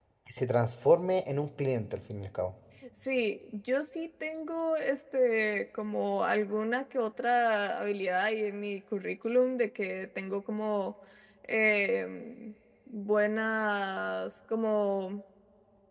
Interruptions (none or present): none